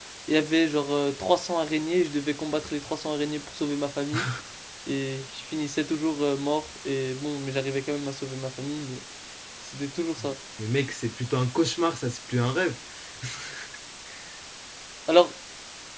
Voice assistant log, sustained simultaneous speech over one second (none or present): none